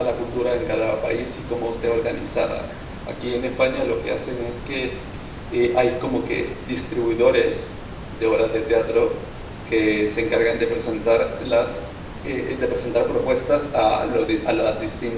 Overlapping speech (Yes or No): No